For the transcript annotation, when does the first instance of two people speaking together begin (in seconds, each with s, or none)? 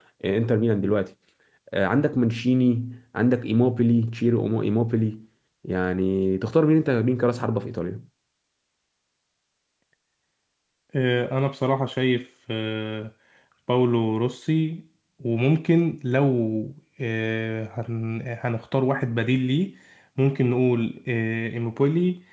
none